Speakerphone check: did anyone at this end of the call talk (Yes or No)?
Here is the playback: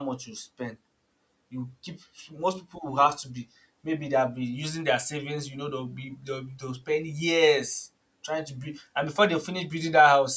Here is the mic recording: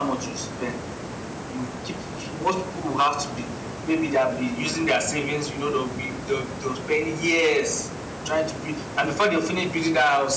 No